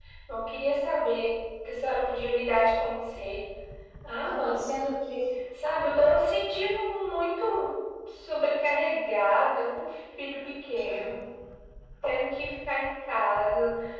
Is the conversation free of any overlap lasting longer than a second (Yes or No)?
Yes